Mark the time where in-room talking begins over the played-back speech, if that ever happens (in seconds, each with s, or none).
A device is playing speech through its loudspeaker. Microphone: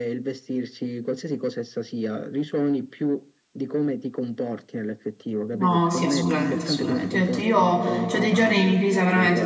5.5 s